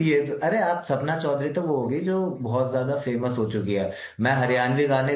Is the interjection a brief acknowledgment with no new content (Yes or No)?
Yes